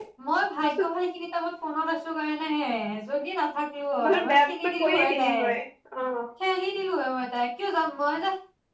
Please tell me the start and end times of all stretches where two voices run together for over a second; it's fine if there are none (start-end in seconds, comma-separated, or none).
4.0-5.3